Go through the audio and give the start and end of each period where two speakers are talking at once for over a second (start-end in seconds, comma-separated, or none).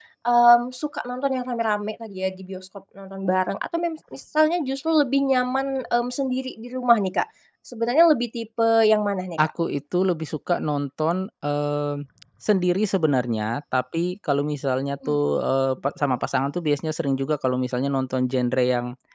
none